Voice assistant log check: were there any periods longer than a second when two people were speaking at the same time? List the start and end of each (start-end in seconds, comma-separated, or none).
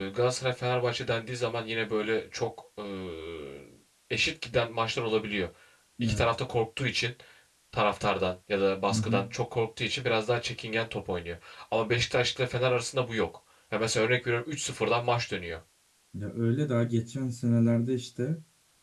none